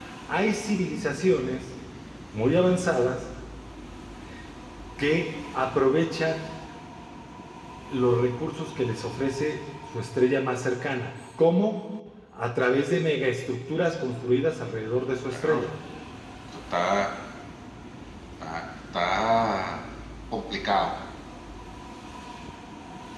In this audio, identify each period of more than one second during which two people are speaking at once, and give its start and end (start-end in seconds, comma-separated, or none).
none